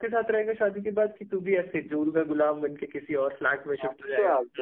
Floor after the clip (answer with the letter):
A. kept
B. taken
B